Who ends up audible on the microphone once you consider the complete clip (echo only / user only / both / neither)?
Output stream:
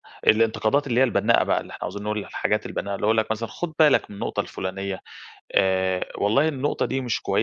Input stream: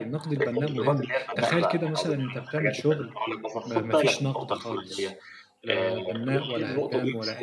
both